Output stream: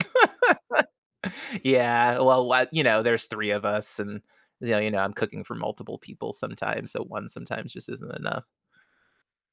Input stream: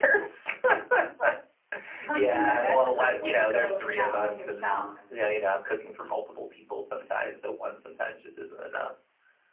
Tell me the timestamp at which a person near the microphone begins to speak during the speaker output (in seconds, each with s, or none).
2.0 s